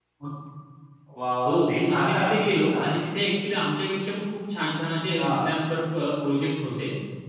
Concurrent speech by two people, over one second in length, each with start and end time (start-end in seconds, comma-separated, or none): 1.4-2.9